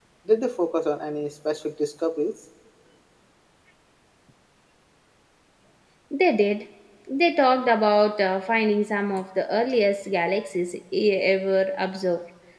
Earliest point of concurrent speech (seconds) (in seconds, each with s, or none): none